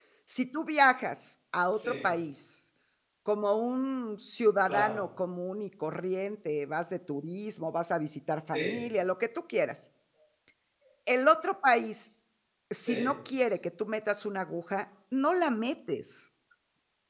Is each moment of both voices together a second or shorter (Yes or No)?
Yes